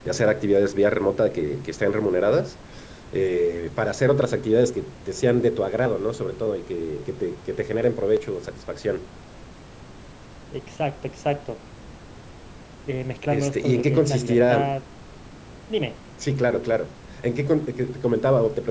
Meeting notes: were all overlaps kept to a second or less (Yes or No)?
No